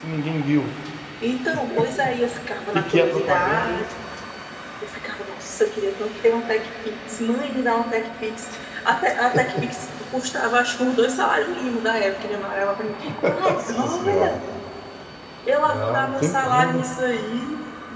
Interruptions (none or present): present